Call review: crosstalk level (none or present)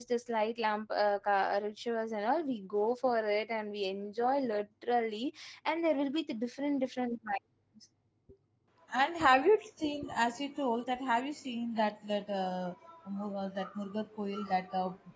none